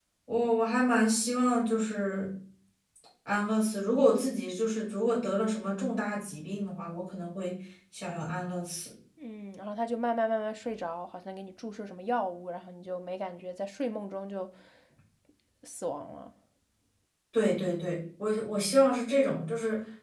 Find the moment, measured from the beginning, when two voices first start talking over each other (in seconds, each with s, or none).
none